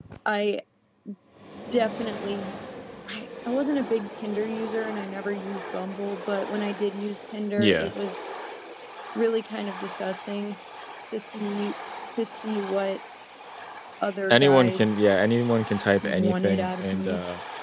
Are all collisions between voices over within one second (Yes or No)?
No